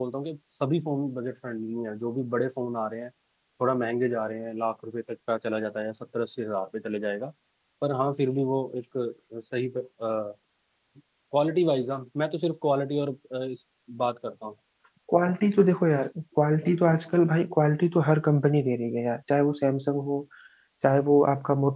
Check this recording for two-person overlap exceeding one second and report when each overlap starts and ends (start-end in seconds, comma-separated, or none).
none